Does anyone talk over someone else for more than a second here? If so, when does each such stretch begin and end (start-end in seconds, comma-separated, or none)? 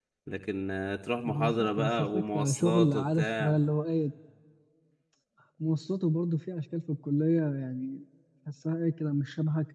1.2-3.6